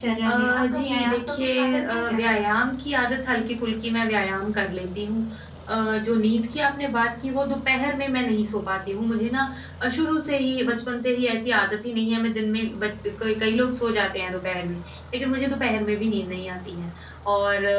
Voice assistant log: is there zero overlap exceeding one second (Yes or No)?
No